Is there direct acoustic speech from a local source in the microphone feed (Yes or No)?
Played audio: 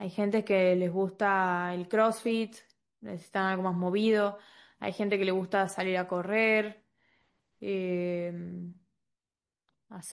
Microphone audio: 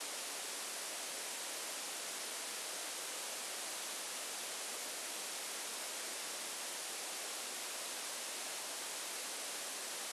No